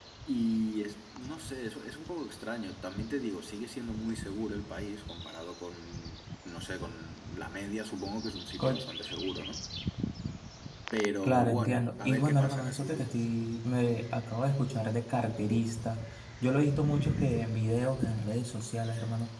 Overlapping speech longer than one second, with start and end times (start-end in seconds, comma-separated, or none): 11.2-13.2